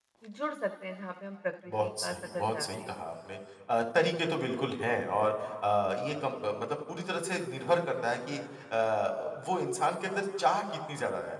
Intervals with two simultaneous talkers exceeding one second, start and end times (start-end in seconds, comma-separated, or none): 1.7-2.9